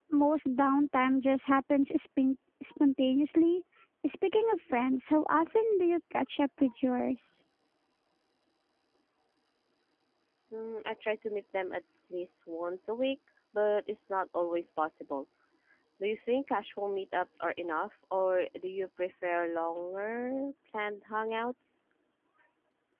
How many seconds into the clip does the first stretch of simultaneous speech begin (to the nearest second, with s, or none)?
none